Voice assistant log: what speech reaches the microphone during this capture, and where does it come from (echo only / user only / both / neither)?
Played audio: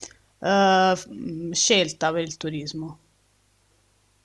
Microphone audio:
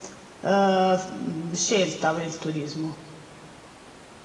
echo only